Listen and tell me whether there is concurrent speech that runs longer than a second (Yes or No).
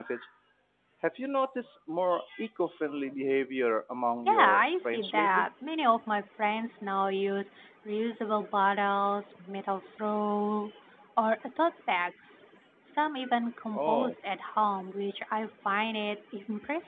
Yes